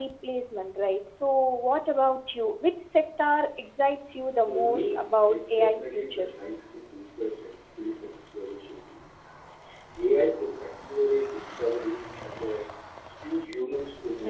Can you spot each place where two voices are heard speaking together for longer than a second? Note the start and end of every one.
4.5-6.2

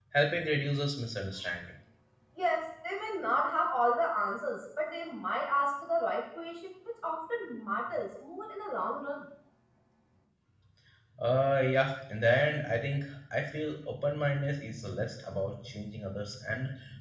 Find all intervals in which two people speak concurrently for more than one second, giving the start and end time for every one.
none

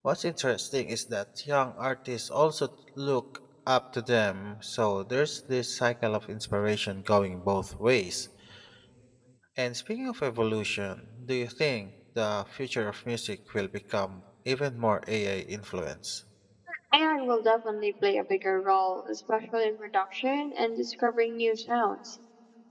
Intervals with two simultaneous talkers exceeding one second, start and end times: none

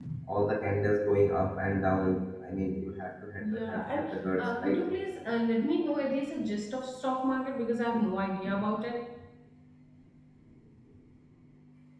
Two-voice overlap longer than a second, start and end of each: 3.4-4.8

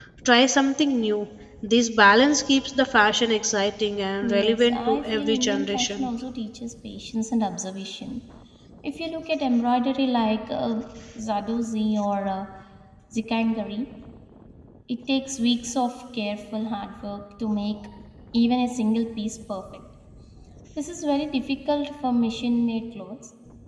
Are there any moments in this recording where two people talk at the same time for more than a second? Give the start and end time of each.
4.2-6.1

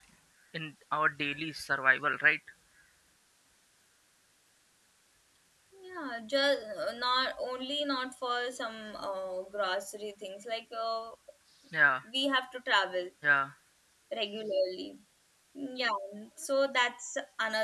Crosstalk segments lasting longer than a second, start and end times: none

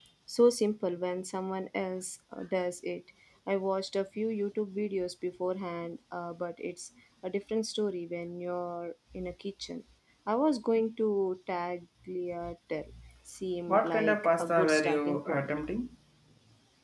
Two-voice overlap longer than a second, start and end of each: 13.7-15.6

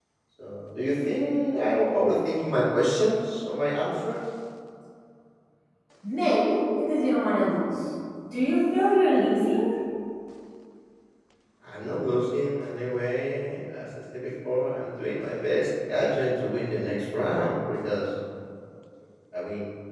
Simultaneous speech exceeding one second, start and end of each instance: none

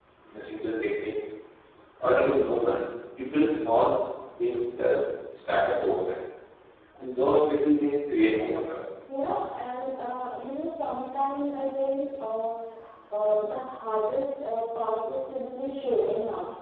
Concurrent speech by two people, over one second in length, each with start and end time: none

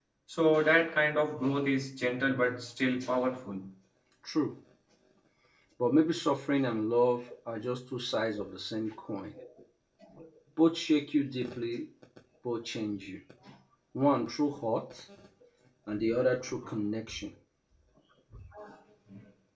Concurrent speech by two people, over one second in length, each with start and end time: none

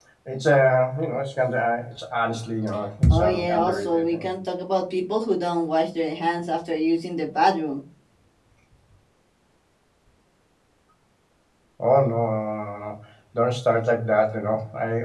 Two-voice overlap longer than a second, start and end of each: 3.1-4.3

